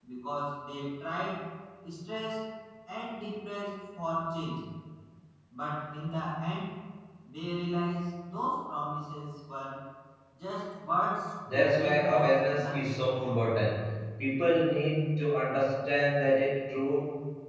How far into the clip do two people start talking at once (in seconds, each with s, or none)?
11.4 s